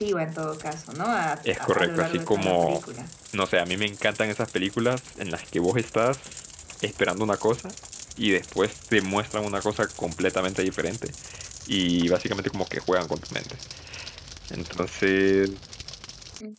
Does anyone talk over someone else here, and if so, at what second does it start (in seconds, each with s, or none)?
1.4 s